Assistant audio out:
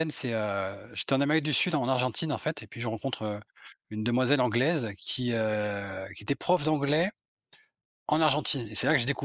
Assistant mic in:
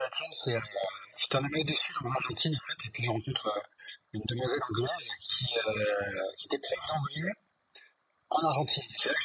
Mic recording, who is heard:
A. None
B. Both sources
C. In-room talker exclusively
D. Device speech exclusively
D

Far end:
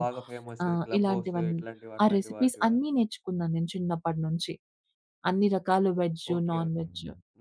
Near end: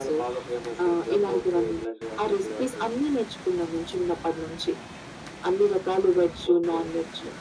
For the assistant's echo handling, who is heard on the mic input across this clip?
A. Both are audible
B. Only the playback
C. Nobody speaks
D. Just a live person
B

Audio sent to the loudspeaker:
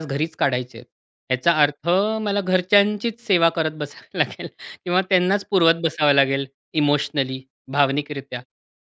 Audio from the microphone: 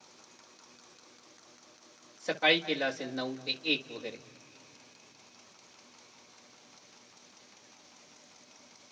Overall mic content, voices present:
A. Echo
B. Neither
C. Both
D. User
D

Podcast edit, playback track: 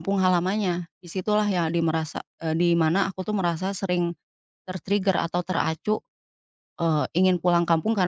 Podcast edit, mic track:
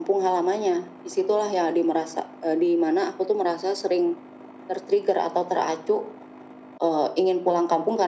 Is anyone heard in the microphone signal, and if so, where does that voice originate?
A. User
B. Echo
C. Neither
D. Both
B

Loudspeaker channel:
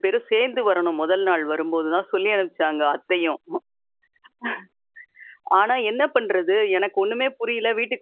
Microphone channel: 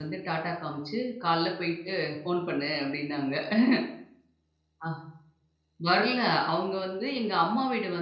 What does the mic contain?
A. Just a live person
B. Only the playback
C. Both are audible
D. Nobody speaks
A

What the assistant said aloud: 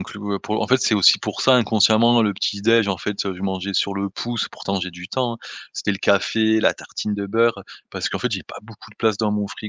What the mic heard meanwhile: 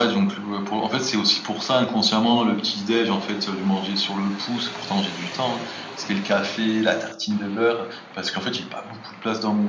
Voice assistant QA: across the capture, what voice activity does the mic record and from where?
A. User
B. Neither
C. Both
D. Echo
D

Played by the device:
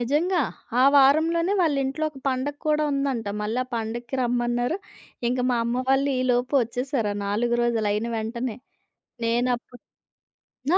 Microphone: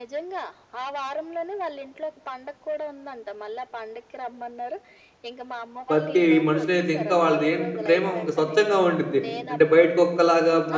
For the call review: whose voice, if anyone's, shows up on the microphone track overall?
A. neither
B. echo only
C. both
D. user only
C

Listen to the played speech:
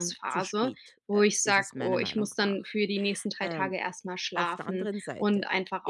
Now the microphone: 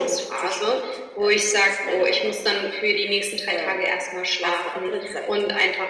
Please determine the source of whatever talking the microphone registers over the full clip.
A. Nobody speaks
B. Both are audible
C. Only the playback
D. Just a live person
C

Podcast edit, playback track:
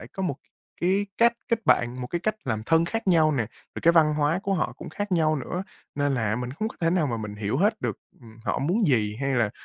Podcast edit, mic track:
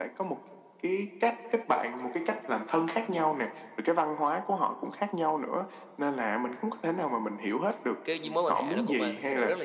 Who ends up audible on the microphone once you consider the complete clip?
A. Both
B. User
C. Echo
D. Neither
A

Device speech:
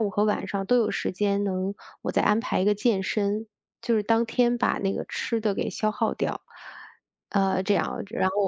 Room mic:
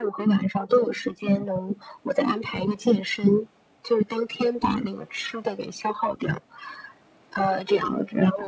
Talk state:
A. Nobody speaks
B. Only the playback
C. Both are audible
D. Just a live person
B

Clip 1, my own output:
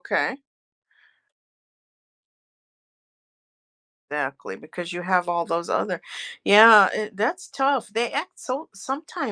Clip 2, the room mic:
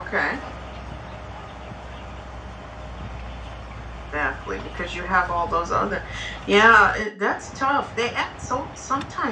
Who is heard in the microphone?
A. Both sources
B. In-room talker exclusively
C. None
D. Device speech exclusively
D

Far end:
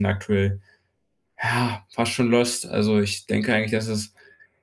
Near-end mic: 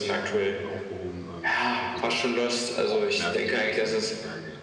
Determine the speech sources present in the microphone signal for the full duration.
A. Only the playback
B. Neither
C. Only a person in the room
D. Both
D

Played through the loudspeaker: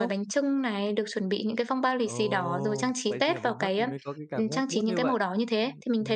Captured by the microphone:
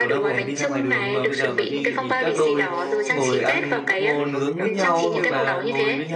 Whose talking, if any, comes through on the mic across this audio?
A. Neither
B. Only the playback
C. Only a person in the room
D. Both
D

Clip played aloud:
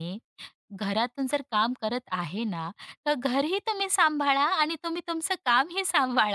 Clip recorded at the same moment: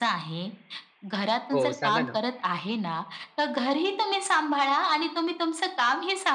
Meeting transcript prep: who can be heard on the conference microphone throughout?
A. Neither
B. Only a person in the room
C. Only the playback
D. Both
D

